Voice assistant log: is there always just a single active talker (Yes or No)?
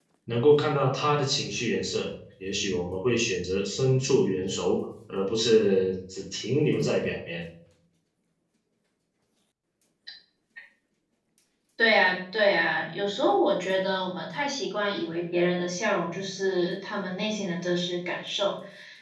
Yes